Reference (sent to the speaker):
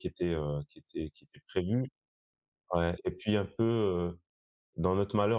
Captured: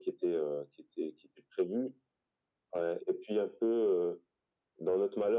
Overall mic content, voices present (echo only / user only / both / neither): echo only